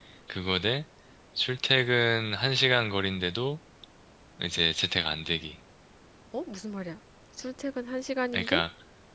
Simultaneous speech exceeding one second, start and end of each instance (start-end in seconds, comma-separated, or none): none